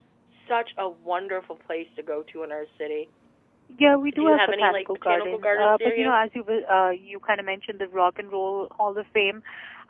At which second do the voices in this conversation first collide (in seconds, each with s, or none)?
4.2 s